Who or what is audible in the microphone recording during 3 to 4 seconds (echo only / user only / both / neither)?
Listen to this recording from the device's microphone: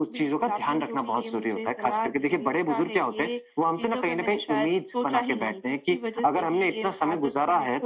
echo only